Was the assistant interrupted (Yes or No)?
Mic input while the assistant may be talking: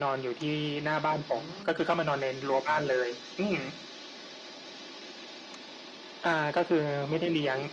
Yes